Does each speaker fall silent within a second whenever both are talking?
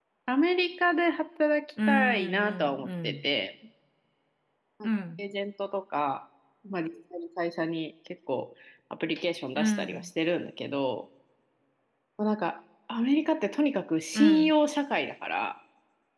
No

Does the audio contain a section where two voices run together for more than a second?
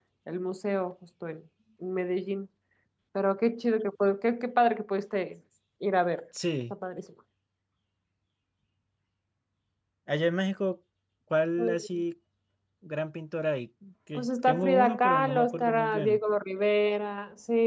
Yes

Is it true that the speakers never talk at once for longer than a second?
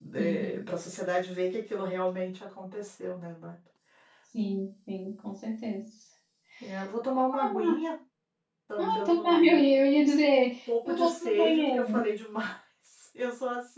No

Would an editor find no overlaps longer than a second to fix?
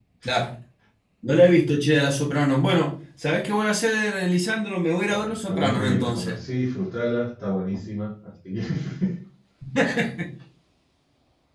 No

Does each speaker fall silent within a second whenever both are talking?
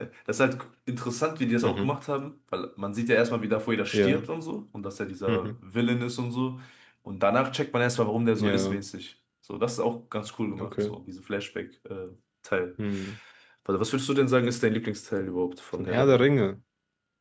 Yes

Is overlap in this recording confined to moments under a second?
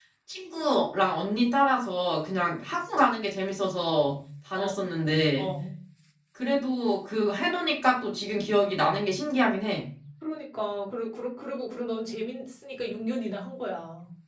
Yes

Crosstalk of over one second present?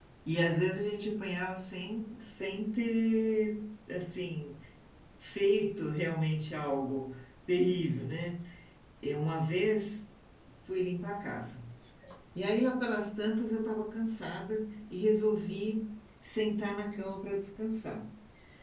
No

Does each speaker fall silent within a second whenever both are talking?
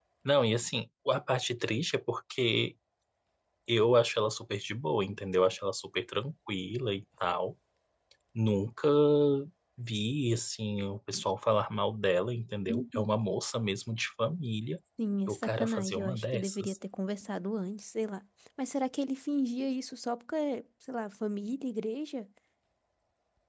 No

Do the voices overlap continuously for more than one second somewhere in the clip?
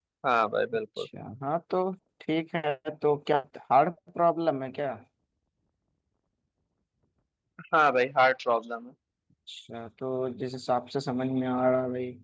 No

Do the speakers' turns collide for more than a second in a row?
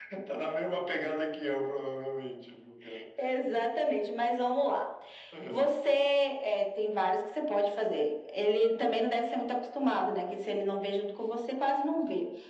No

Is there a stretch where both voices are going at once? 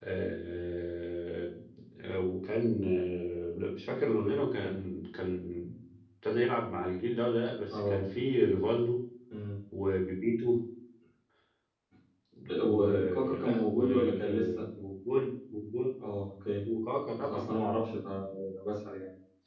Yes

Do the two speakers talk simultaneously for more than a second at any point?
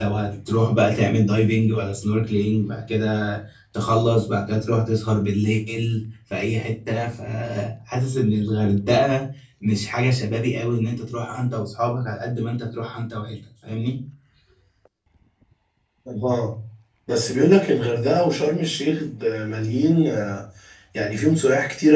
No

